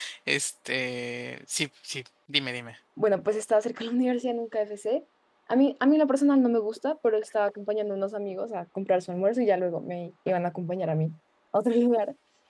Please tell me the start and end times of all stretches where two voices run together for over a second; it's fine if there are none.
none

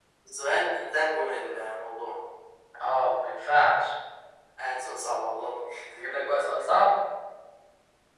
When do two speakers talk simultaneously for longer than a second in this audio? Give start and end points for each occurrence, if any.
none

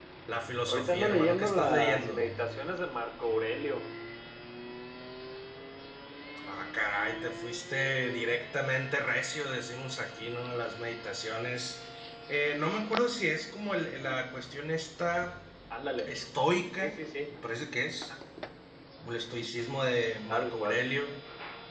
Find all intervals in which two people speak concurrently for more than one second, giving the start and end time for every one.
0.7-2.2

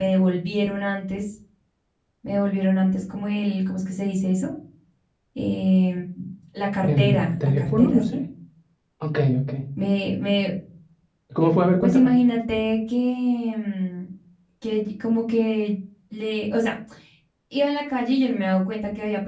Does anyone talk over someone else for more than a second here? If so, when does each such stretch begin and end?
6.8-8.0

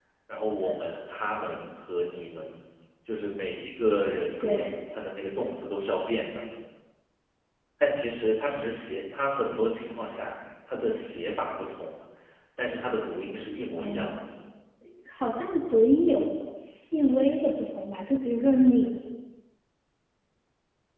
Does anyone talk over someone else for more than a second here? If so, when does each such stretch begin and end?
none

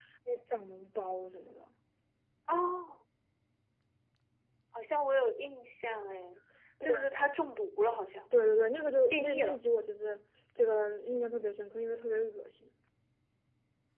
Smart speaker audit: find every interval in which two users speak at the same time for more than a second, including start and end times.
none

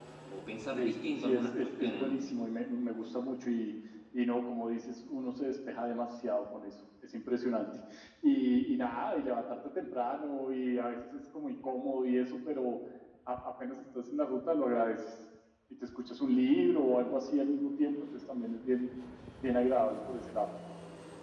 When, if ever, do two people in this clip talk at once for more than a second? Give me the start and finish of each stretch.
0.8-2.2

